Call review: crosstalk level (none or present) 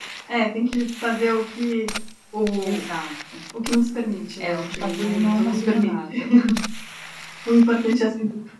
present